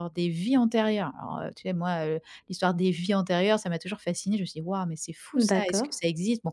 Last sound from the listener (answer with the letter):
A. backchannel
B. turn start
A